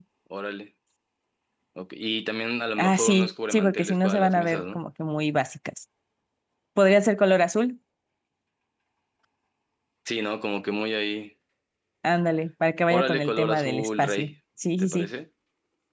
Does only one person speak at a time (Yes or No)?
No